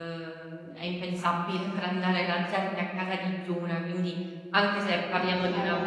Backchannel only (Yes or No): Yes